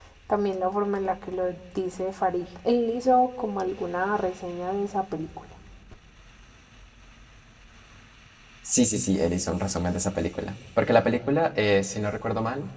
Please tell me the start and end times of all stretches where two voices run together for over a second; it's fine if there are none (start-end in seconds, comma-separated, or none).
none